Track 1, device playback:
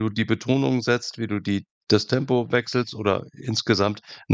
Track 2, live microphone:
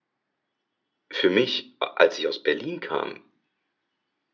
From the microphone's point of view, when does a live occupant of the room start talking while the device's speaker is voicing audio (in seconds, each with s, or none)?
1.1 s